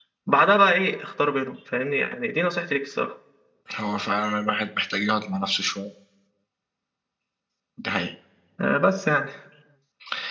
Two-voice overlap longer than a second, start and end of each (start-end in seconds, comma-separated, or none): none